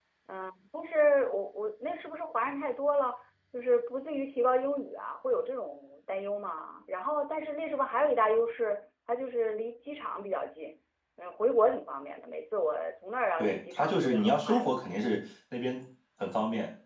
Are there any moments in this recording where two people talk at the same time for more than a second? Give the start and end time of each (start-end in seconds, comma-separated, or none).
13.4-14.7